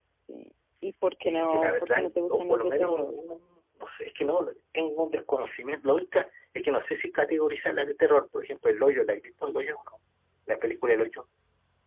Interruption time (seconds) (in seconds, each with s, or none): 1.2 s